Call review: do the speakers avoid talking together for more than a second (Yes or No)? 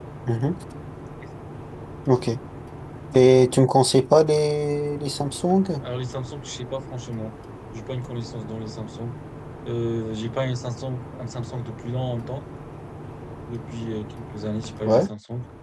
Yes